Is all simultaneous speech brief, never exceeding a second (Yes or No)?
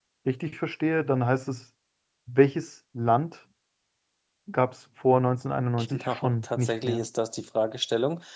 No